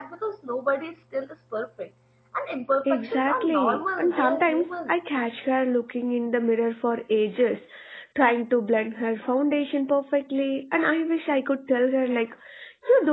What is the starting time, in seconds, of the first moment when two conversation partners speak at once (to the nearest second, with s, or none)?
3 s